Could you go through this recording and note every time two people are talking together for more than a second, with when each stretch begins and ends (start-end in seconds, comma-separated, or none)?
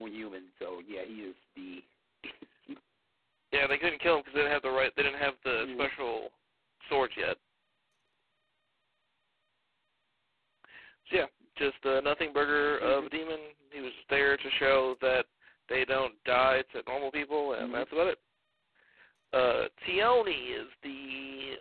none